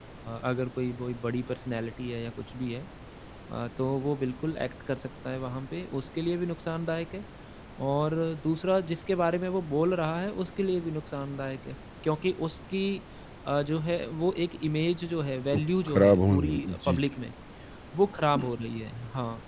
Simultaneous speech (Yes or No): Yes